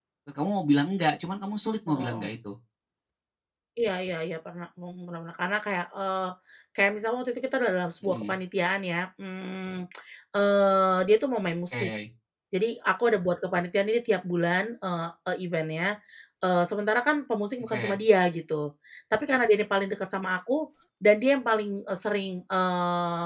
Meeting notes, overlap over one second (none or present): none